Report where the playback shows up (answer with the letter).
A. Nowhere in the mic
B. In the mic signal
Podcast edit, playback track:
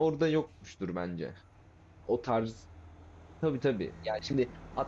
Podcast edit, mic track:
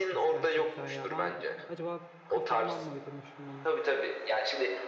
B